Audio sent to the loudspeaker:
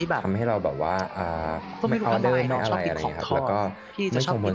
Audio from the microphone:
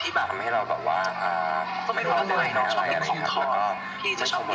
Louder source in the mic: echo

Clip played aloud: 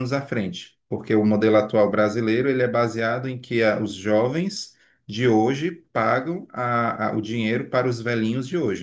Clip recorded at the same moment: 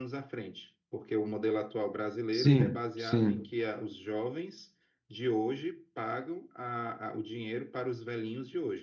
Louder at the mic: user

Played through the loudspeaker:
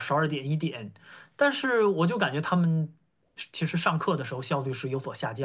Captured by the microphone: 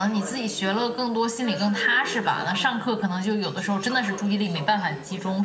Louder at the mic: user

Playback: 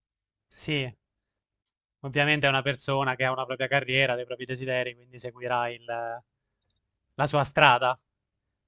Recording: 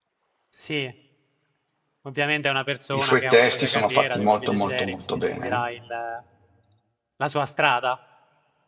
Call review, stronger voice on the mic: user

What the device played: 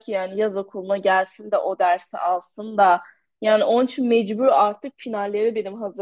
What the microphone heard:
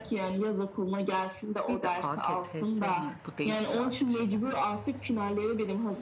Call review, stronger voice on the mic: echo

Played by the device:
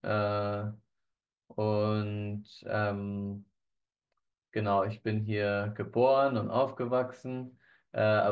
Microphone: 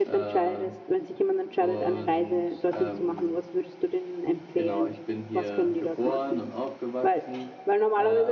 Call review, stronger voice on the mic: user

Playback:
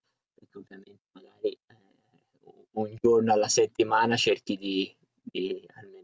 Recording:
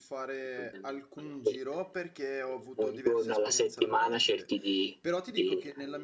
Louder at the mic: echo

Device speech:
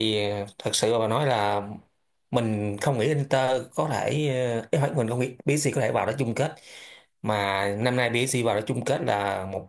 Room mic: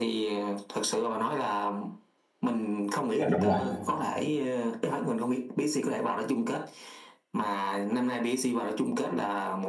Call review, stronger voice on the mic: user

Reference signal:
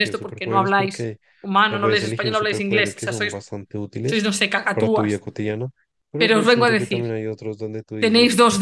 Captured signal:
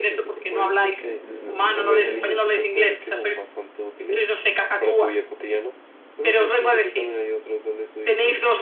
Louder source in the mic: echo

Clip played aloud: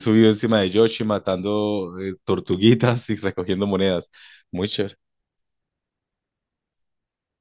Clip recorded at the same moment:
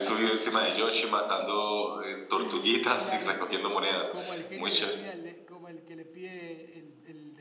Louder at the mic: echo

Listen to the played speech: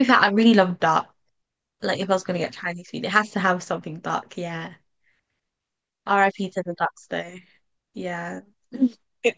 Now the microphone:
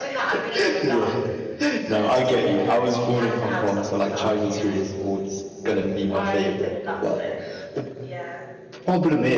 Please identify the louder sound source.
user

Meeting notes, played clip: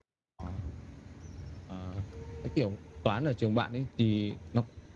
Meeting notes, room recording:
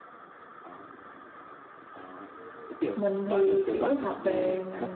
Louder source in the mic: user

